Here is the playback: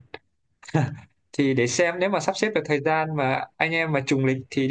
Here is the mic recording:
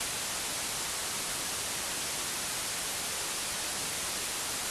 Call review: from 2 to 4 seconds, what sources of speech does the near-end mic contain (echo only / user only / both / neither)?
neither